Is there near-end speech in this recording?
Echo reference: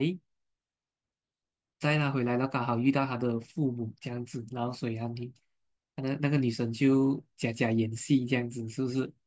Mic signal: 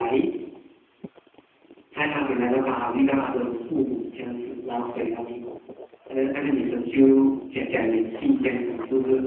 No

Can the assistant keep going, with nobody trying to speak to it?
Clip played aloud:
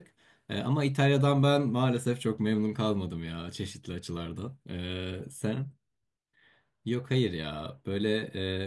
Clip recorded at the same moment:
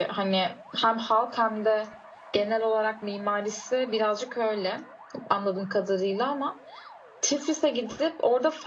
No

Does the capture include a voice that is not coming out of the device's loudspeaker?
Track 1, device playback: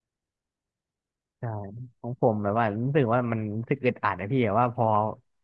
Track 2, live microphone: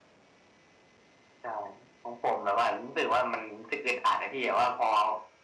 No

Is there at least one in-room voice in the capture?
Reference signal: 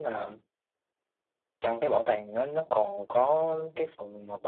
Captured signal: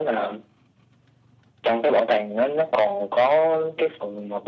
No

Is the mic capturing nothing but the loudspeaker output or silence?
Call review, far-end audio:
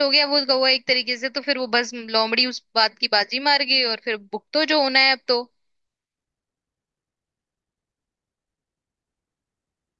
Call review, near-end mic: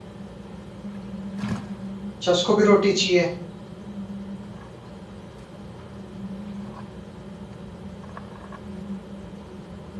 No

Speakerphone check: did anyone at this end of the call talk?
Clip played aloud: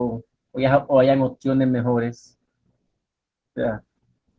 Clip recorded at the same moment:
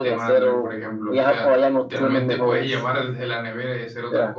Yes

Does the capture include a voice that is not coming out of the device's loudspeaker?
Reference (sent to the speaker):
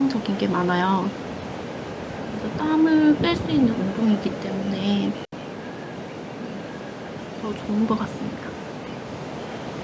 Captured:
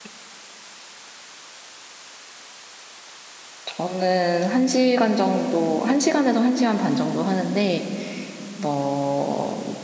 Yes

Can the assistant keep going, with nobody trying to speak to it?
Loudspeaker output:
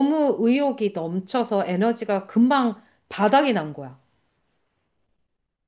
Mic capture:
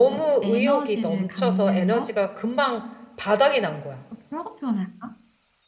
No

